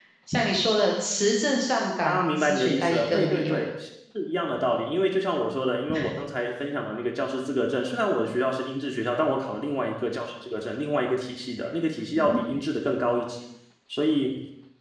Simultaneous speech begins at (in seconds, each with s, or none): 2.0 s